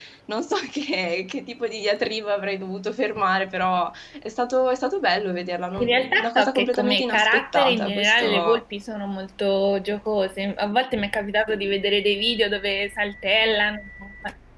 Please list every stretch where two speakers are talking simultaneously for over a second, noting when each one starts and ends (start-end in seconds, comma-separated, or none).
5.8-8.6